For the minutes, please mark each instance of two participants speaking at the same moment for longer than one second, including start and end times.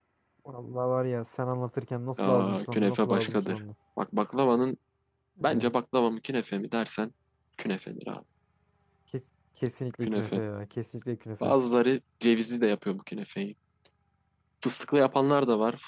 2.2-3.6

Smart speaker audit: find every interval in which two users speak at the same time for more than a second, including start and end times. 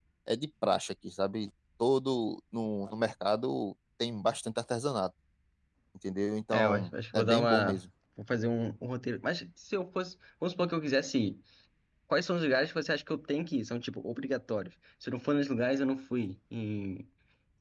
6.5-7.8

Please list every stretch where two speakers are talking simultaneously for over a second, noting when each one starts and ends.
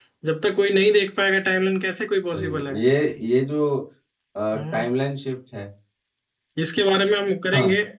none

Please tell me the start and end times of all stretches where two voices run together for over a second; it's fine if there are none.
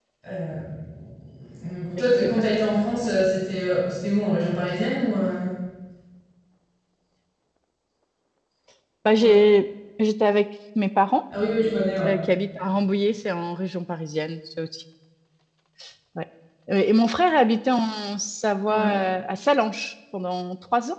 none

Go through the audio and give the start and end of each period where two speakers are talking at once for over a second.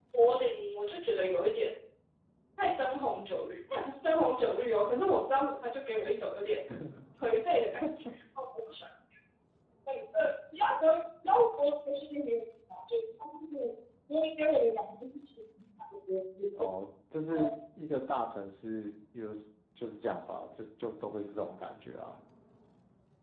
none

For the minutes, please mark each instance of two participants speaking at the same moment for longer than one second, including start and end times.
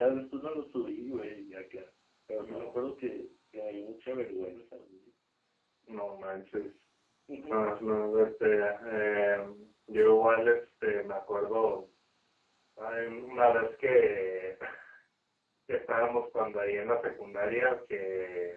none

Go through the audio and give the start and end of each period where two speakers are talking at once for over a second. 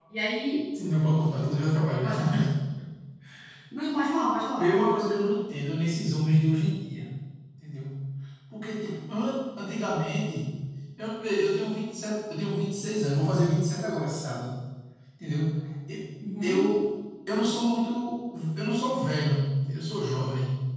none

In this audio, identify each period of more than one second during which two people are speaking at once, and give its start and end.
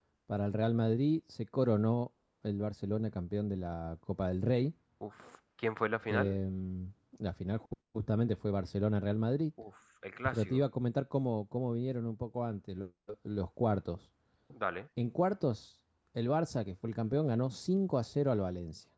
none

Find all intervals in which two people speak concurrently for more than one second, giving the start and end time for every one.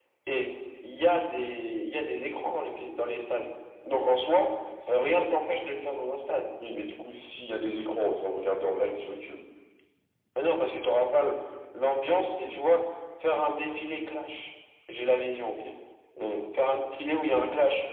none

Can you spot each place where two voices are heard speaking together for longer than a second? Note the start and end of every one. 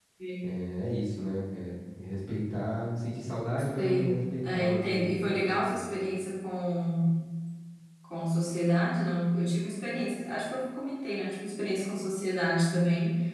4.4-5.8

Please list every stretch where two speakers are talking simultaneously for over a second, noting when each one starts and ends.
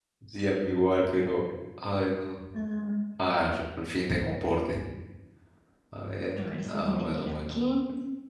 6.4-7.6

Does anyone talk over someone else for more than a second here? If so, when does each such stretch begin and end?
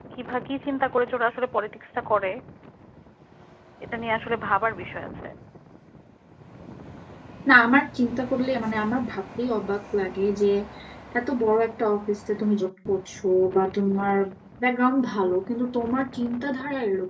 none

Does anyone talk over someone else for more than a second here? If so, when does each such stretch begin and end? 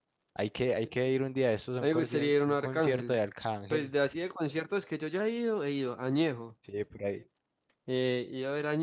1.8-3.2

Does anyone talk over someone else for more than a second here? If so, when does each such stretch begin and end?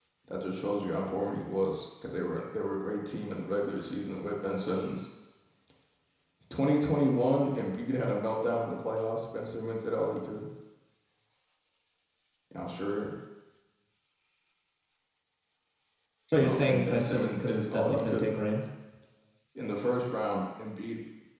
16.4-18.3

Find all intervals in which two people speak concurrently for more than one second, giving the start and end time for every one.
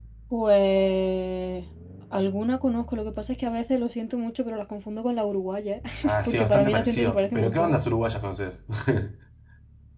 6.2-7.8

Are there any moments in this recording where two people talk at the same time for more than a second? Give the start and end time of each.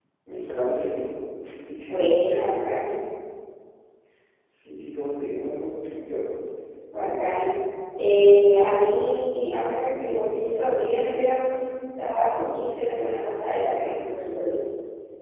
none

